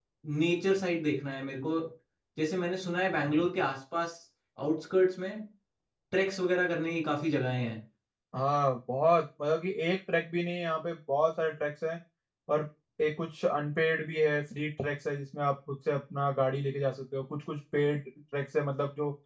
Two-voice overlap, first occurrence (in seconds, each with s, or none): none